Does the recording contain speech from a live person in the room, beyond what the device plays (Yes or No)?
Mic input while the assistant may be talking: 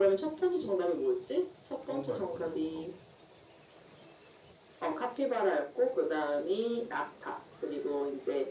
Yes